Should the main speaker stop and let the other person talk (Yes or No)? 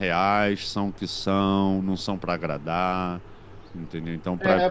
Yes